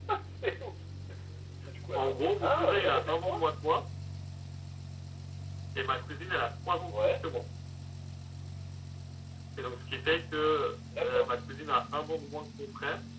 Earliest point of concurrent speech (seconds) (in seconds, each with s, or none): 1.9 s